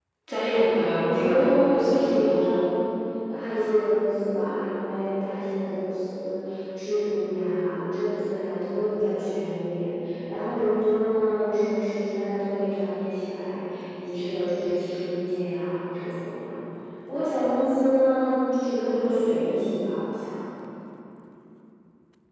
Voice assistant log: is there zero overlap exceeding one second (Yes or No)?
No